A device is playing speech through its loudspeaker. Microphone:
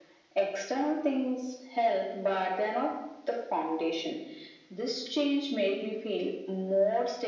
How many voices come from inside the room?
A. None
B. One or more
A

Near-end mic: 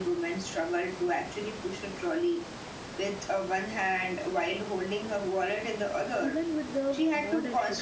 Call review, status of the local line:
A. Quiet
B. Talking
B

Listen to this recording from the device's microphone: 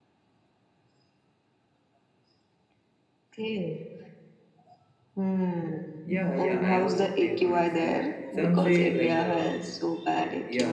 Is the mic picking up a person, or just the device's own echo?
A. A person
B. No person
A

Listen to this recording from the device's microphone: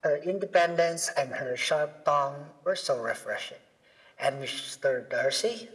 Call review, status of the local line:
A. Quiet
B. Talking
A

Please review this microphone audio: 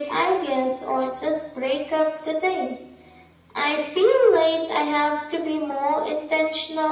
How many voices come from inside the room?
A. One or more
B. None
B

